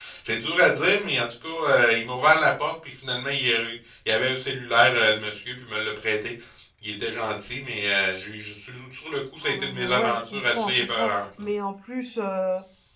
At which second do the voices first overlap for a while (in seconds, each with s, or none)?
9.4 s